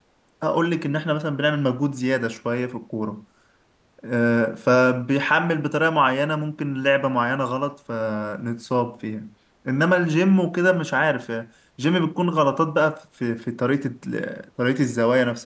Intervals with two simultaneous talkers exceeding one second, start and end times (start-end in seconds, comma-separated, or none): none